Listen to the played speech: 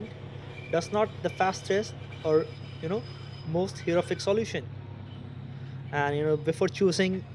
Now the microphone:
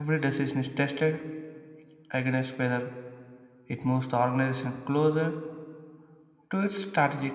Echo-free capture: Yes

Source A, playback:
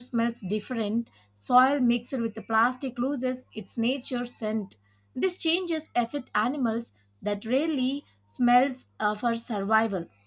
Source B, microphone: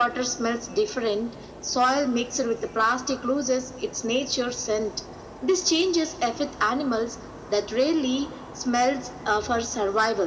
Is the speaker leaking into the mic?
Yes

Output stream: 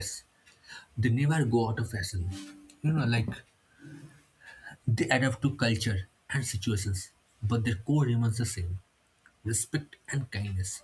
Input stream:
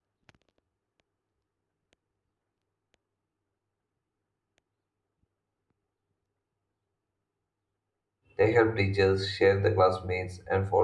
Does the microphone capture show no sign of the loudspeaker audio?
Yes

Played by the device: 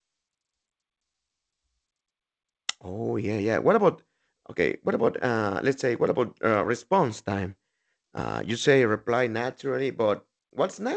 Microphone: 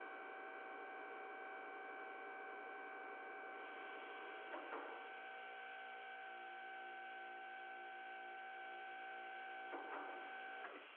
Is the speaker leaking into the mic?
No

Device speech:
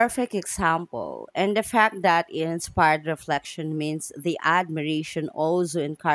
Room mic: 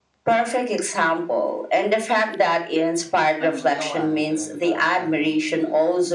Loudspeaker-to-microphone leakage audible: Yes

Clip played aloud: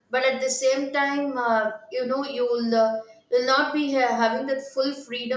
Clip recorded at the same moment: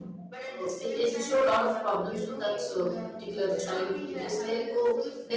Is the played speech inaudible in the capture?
No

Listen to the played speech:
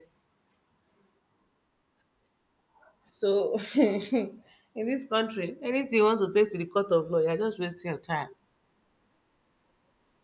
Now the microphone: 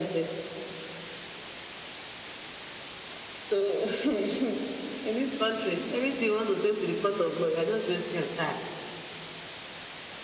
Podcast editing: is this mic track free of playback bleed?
No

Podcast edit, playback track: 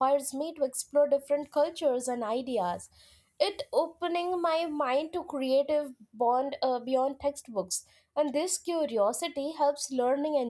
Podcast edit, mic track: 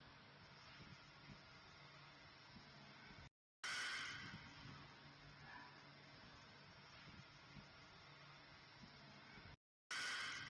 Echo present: No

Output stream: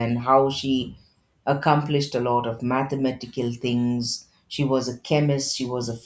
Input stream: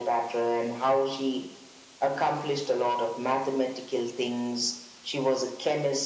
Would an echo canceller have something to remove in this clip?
Yes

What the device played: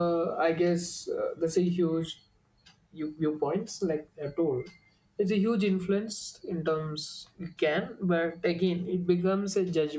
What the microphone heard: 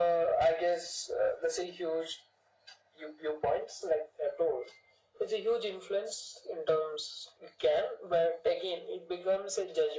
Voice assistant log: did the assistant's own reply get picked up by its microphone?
Yes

